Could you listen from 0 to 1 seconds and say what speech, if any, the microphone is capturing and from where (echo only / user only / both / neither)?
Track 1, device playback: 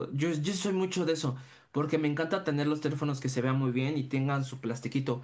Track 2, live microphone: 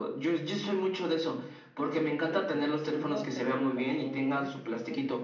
echo only